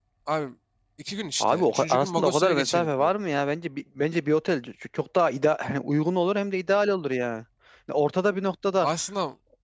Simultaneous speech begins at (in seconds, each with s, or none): 1.4 s